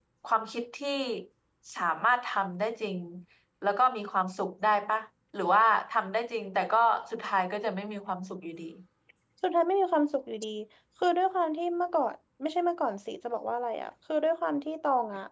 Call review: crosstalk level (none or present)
none